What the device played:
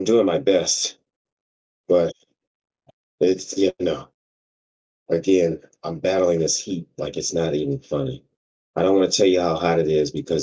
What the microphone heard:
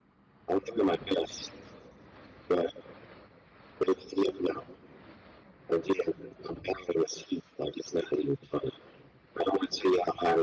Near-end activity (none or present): none